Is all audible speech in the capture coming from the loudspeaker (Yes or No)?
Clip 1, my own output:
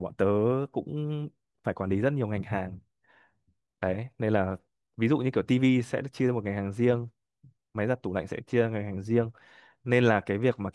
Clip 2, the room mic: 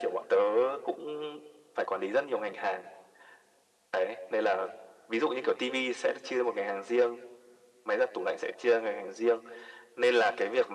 Yes